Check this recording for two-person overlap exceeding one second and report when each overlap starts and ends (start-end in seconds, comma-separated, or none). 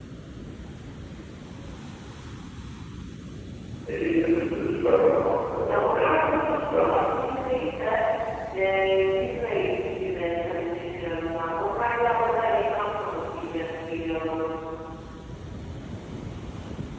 5.7-7.1